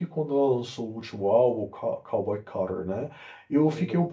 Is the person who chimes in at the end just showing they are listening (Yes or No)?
Yes